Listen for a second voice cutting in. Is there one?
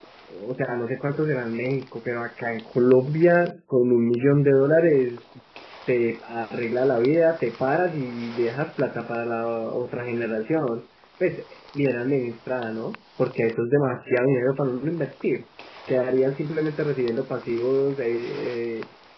No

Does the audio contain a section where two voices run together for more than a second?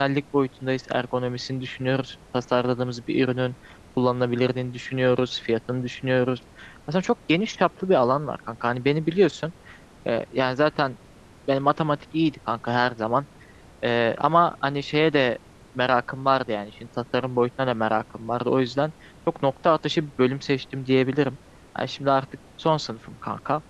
No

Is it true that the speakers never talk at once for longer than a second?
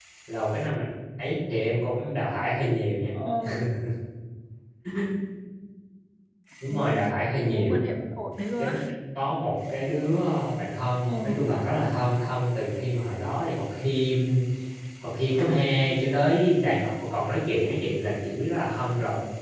Yes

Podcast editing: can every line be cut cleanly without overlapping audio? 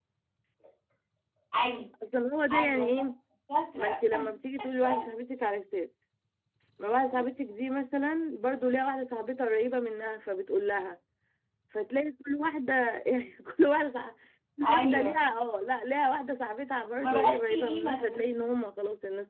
No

